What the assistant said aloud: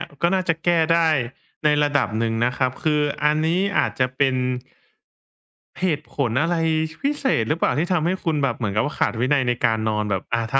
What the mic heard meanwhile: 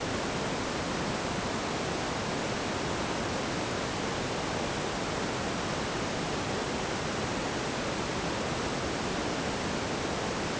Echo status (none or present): none